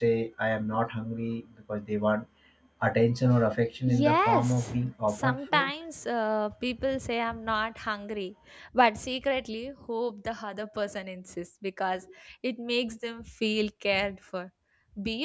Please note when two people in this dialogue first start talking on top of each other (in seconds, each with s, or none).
3.9 s